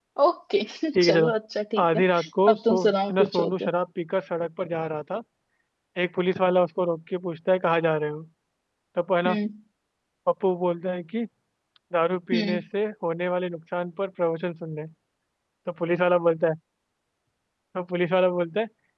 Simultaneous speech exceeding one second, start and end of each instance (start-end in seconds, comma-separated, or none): 2.5-3.7